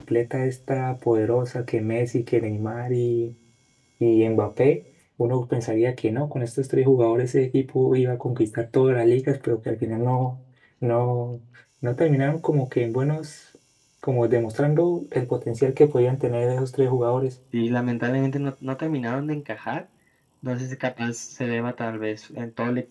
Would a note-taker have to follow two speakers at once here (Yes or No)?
No